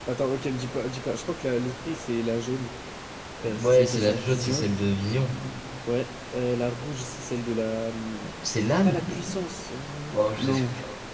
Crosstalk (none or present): present